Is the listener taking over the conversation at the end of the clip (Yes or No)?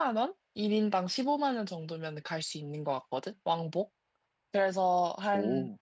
No